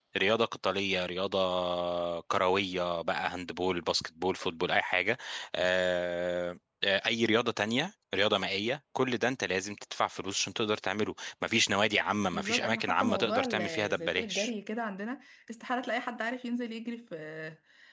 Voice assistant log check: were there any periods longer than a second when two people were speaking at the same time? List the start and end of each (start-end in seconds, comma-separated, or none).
12.3-14.5